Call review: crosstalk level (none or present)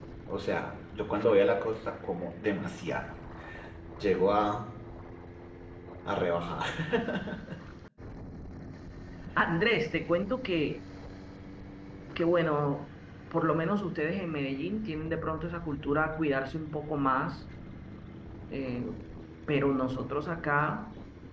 none